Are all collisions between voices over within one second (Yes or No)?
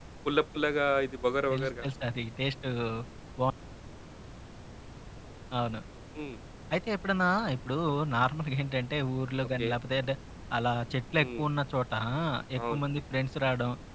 Yes